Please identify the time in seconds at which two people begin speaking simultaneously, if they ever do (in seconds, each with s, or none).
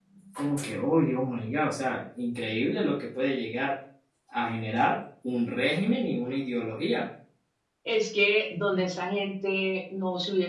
none